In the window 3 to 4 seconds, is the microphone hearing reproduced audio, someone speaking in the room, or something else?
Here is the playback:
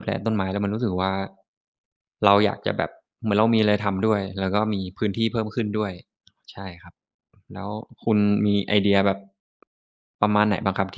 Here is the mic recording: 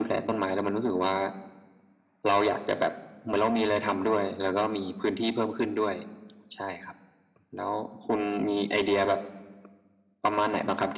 echo only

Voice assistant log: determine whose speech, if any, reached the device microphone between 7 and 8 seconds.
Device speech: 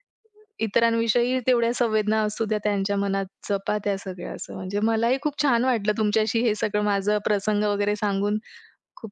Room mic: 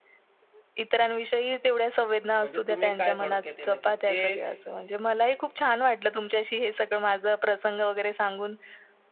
echo only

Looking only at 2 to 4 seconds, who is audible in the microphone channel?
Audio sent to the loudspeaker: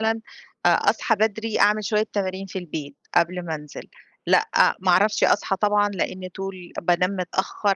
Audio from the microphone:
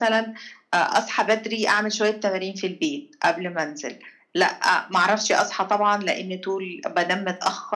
echo only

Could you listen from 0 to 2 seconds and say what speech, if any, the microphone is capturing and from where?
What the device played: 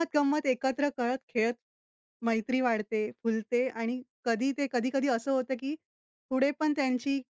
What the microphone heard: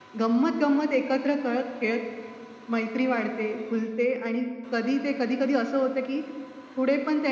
echo only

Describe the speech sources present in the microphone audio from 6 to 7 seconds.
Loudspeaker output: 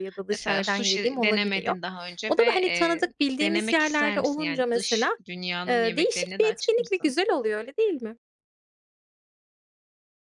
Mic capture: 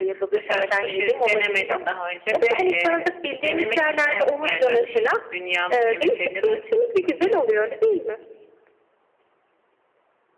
echo only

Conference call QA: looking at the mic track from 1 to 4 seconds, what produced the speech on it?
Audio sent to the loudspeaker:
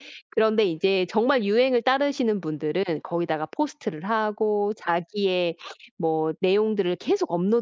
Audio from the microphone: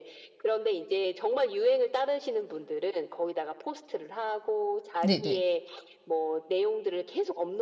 echo only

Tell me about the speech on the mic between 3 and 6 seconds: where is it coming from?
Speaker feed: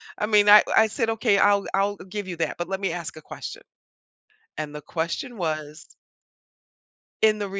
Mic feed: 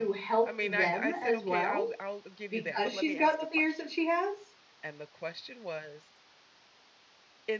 both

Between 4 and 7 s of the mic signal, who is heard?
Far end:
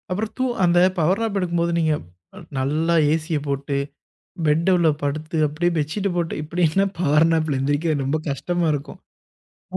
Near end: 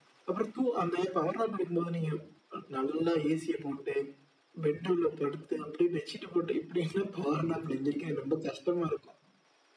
echo only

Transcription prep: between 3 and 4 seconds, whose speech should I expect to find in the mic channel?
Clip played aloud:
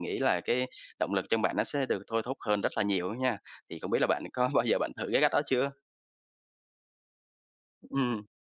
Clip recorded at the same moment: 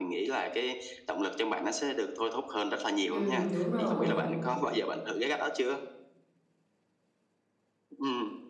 both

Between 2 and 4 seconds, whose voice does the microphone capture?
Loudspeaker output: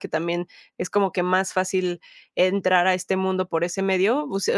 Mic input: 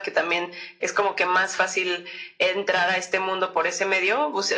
echo only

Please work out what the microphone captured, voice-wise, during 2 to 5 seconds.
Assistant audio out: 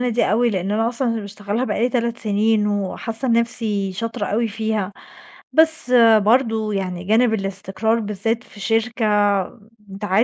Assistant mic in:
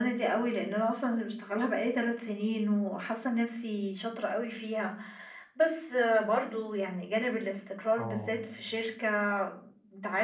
echo only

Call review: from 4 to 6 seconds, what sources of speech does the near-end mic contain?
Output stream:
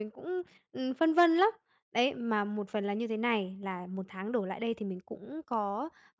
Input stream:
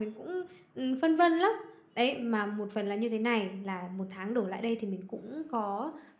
echo only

